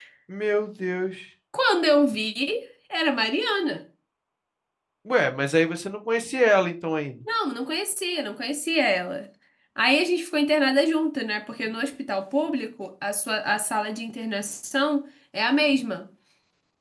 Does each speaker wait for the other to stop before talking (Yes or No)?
Yes